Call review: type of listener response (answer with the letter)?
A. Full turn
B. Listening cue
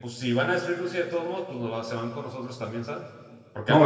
A